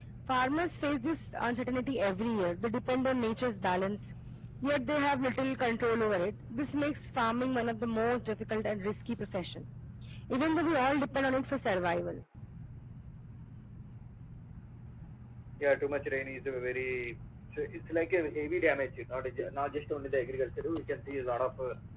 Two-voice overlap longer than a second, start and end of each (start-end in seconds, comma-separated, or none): none